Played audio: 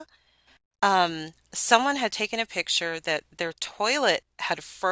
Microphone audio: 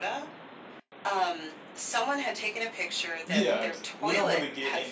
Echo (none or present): present